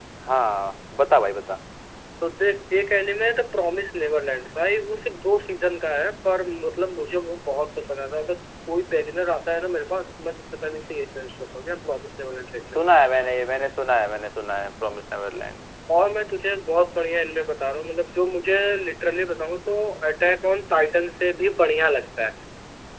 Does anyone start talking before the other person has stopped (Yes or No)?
No